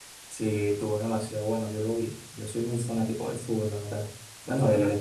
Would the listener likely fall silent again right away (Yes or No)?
Yes